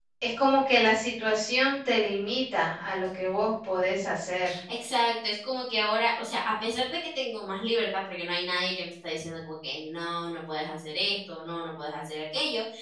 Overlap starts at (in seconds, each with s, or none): none